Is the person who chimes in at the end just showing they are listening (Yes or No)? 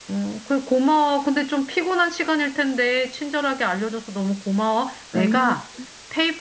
Yes